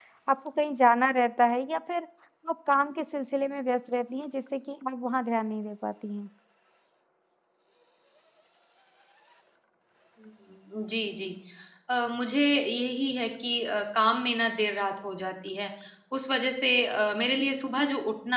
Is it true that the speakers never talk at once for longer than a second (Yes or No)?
Yes